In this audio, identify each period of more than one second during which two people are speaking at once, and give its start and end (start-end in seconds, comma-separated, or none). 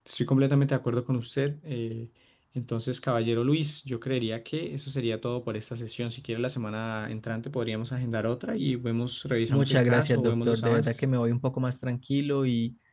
9.5-11.0